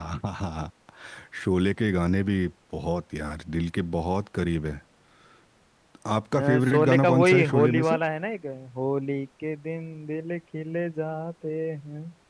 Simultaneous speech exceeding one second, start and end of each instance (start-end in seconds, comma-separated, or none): 6.4-7.9